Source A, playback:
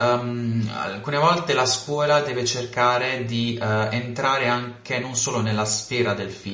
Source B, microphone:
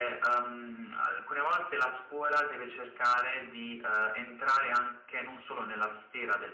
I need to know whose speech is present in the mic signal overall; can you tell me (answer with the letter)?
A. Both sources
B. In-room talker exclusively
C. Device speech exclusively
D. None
C